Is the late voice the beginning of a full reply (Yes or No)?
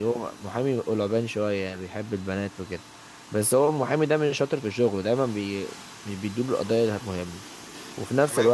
No